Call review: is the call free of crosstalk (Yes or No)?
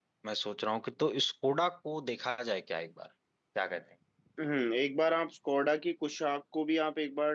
Yes